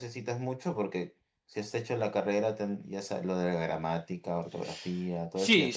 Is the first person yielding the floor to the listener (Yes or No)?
Yes